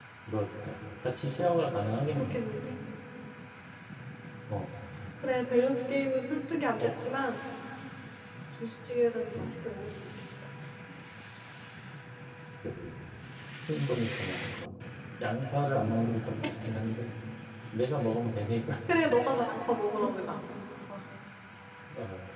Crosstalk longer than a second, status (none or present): none